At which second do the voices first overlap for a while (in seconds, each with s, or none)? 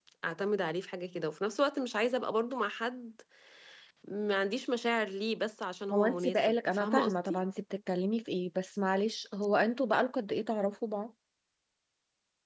5.9 s